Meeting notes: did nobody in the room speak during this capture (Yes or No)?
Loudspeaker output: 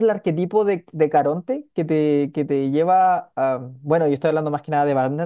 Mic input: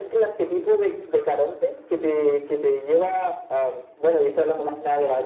Yes